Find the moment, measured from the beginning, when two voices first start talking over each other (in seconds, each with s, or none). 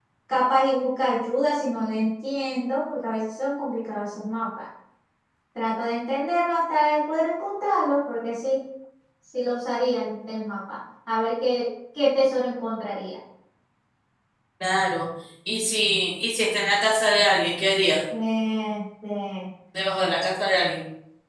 none